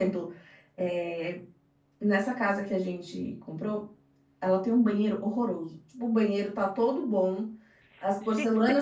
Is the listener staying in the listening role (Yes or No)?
Yes